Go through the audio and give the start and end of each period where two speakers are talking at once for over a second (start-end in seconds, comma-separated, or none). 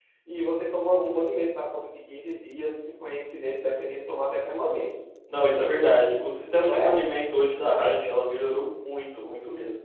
none